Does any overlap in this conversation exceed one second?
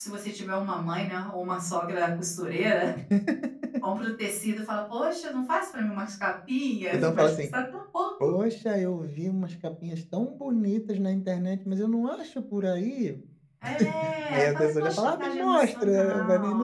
Yes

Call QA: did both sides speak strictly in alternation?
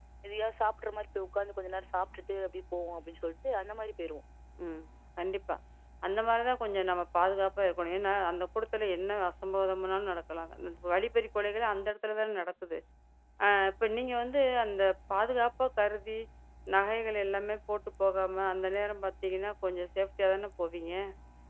Yes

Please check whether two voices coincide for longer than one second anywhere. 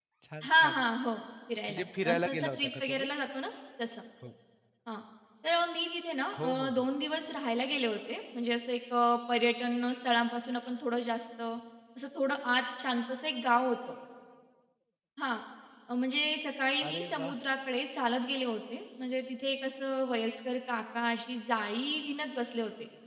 Yes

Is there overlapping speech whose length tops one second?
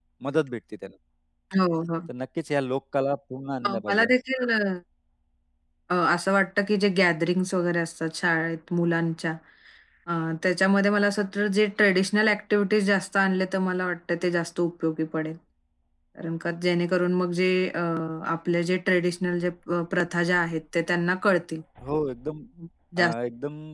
No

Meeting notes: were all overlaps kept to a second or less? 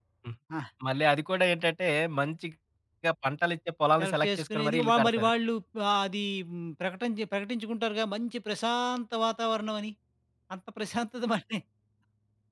No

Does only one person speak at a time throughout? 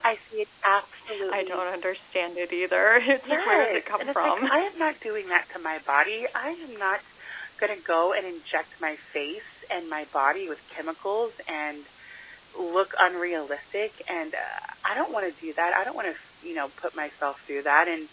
No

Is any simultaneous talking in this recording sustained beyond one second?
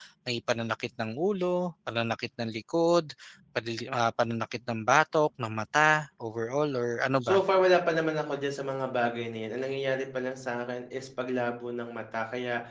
No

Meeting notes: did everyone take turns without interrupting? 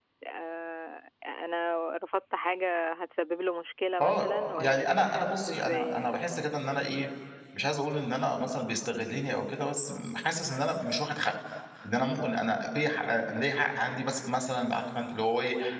No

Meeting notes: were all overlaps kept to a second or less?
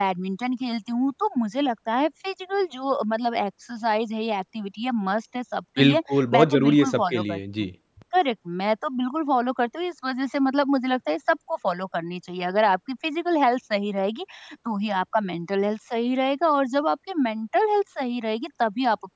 No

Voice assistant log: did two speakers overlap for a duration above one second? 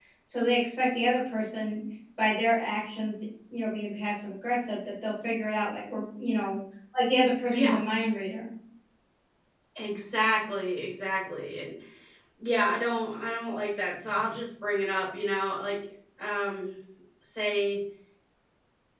No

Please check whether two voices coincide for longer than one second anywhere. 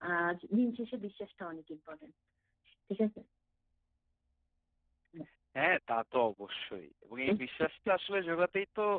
No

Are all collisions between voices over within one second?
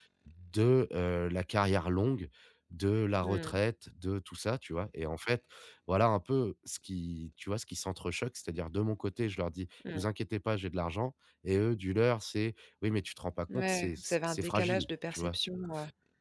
No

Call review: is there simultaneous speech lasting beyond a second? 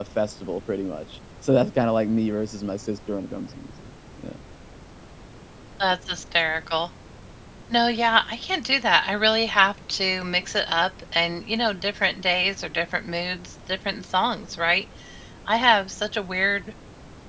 No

